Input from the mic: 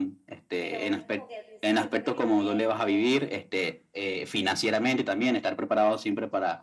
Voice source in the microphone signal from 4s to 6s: echo only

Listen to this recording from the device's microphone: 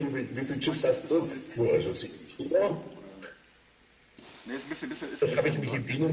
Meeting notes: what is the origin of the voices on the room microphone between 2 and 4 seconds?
both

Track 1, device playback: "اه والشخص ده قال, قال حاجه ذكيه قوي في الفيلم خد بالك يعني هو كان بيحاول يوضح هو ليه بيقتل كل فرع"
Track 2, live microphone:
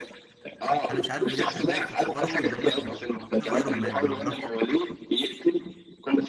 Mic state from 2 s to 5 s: both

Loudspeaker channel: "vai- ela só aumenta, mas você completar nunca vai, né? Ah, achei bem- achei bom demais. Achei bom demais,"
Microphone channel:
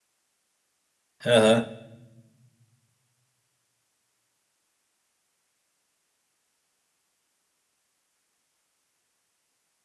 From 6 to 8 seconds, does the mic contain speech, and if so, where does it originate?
neither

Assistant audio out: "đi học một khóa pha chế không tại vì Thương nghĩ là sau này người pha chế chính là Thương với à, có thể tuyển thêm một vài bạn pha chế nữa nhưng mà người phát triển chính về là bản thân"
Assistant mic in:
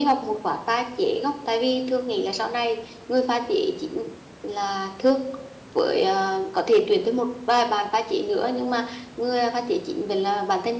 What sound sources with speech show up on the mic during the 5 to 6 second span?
echo only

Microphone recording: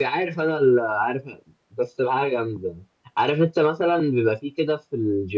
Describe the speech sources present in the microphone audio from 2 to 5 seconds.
user only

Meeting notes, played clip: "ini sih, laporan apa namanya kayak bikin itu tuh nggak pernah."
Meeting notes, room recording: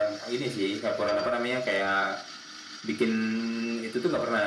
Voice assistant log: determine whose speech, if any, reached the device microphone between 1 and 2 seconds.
echo only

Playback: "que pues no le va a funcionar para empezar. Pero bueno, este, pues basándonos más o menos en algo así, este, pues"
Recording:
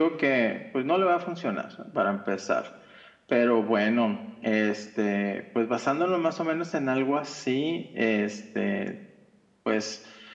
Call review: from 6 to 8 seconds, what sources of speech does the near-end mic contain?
echo only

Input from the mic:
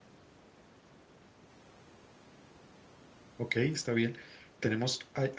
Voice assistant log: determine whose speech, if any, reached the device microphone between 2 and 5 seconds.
user only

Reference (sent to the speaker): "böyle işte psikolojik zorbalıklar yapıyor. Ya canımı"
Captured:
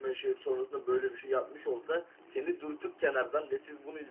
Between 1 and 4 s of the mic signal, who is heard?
user only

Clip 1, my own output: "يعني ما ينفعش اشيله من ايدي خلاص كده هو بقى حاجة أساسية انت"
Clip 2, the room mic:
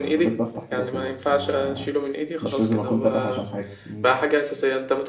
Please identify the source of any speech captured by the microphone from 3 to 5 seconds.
both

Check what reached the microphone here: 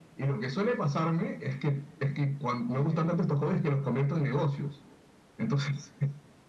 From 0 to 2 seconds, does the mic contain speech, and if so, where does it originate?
echo only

